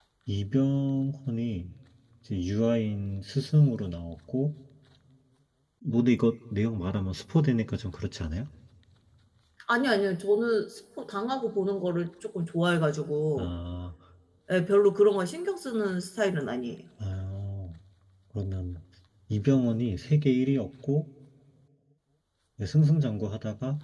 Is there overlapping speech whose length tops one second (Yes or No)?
No